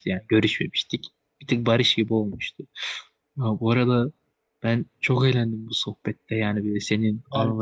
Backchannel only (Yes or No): Yes